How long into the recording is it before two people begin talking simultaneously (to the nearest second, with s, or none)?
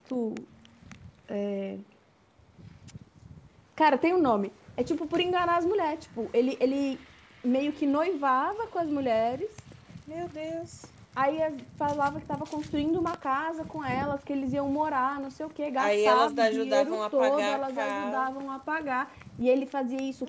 16 s